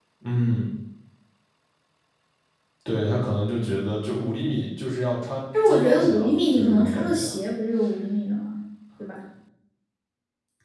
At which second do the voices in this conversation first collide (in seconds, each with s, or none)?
5.5 s